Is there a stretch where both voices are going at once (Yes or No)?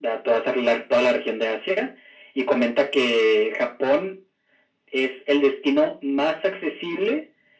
No